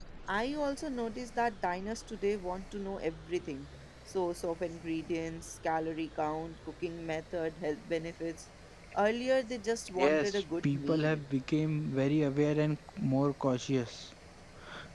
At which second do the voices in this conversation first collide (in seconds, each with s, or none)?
10.0 s